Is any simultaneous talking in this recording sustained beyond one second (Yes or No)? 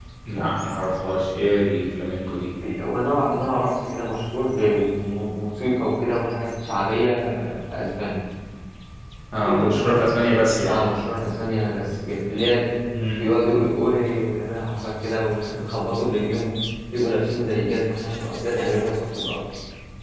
No